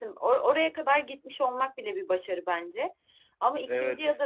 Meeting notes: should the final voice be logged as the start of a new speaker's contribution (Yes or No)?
No